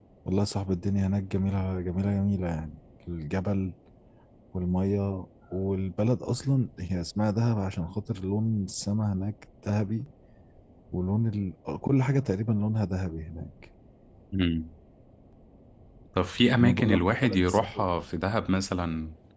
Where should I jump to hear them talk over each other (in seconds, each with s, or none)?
16.6 s